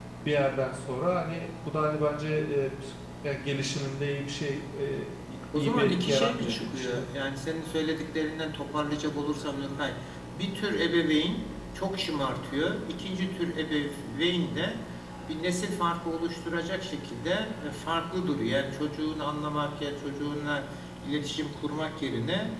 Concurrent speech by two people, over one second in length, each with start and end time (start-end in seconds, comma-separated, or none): 5.5-7.0